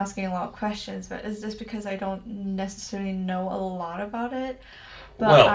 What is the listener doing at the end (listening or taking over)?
taking over